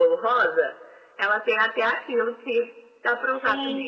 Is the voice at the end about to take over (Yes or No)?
Yes